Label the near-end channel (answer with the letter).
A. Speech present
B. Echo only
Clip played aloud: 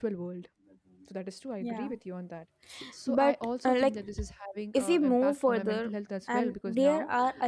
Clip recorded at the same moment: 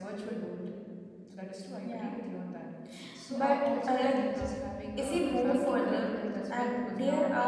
A